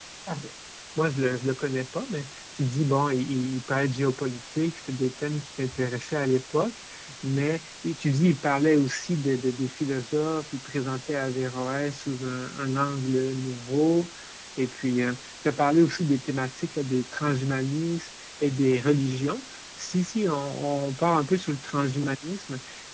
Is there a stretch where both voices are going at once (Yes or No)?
No